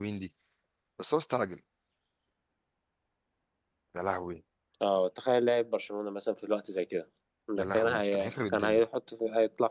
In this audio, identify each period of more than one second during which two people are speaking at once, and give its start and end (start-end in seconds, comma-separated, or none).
7.6-8.8